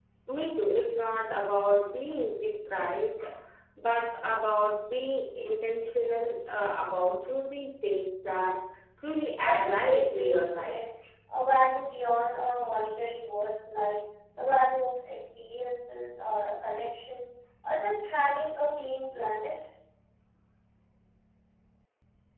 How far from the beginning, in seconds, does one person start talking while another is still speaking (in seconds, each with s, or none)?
9.4 s